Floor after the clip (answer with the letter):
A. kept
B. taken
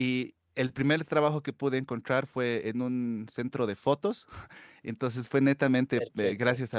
A